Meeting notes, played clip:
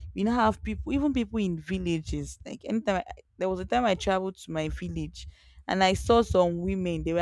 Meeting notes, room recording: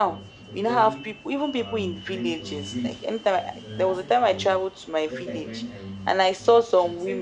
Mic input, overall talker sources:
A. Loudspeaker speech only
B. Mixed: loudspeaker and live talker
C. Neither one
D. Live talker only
B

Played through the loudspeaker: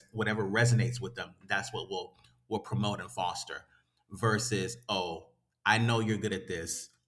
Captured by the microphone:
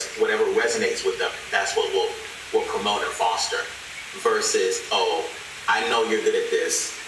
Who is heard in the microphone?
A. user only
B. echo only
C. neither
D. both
B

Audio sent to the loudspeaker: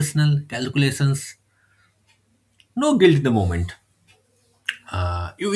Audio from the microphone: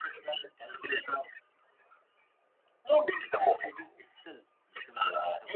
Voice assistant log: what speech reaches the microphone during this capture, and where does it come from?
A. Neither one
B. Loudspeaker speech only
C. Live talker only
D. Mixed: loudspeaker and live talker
D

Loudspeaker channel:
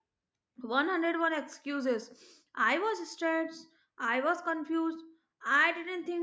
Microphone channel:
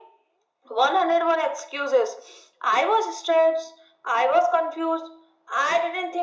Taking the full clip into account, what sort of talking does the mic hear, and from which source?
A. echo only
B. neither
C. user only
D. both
A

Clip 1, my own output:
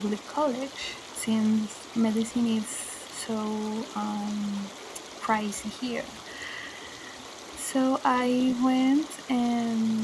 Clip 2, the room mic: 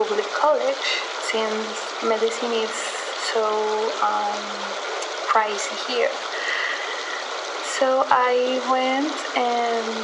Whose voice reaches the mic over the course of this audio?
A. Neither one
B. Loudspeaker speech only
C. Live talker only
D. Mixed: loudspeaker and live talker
B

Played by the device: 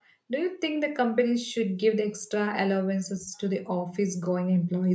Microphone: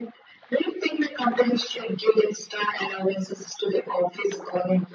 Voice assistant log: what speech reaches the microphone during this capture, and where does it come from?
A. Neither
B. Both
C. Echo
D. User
C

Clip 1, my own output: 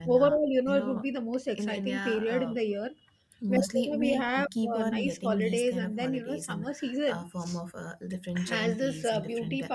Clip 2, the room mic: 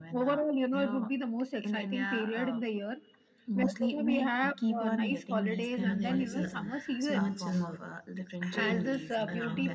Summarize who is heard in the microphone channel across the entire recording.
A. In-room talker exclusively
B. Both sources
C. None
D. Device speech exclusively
B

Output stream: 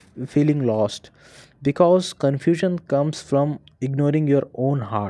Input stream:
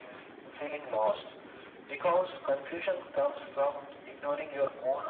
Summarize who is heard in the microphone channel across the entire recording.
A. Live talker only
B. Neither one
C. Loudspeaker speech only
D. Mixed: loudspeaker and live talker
C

